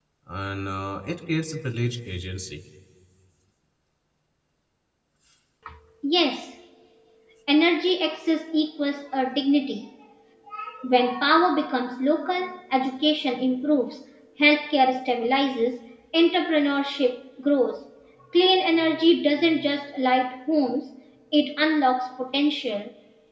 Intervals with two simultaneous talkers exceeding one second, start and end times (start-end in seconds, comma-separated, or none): none